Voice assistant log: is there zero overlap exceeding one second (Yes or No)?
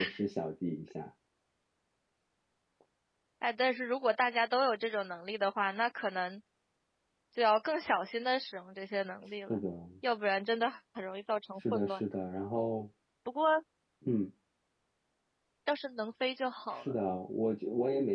Yes